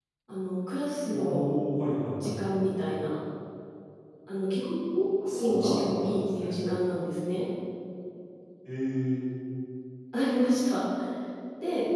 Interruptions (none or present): present